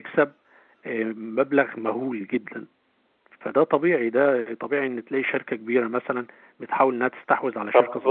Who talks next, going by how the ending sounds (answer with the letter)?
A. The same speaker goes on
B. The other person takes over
B